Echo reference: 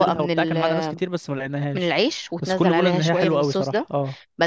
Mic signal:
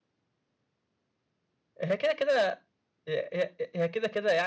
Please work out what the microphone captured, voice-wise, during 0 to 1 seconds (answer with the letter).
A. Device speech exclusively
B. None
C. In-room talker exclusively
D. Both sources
B